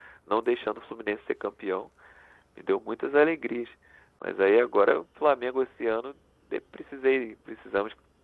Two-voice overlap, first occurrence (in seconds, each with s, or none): none